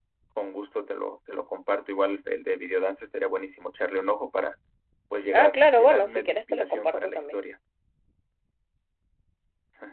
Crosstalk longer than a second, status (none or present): present